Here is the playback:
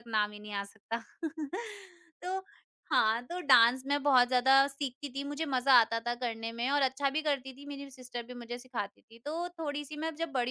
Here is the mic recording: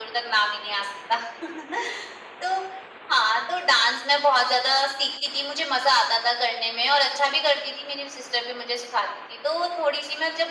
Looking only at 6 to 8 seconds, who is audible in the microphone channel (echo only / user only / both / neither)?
echo only